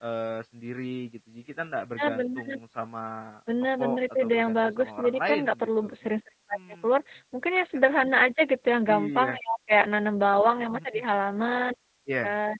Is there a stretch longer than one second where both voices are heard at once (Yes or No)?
Yes